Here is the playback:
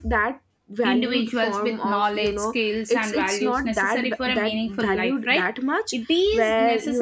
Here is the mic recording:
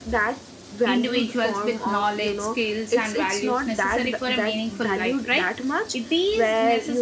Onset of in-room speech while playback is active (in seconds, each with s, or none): none